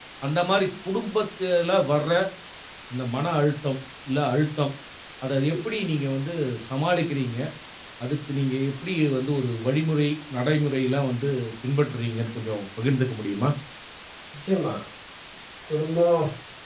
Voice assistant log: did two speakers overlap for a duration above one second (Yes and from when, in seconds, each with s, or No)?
No